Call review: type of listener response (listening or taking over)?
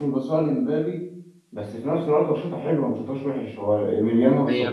taking over